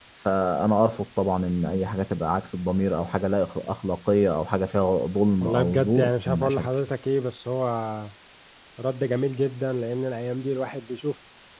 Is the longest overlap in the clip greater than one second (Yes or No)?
Yes